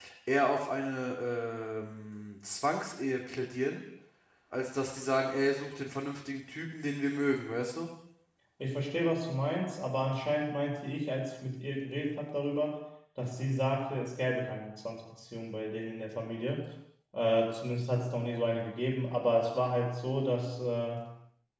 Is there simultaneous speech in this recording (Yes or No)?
No